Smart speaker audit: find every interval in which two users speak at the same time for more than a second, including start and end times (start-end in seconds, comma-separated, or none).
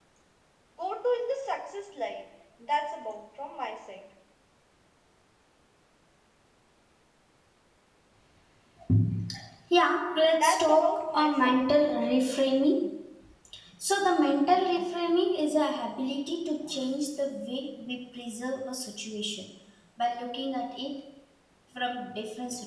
10.3-11.6